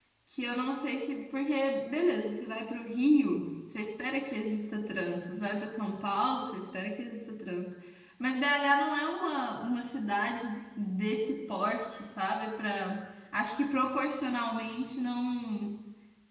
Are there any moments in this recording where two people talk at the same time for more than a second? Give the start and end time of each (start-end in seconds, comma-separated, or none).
none